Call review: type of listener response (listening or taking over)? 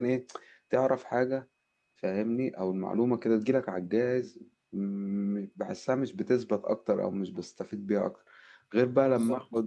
listening